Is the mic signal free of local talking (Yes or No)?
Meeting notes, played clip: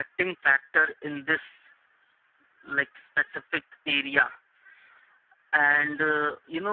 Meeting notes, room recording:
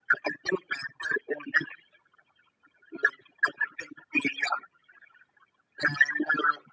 Yes